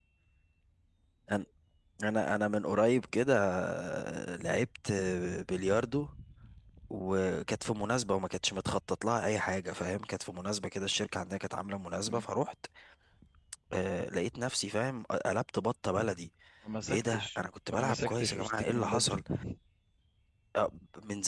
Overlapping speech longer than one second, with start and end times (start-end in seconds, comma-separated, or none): 17.8-19.2